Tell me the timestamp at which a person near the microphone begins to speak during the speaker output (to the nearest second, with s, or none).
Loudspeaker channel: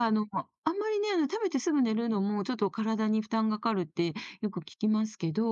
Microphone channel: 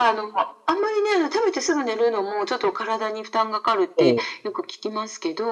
4 s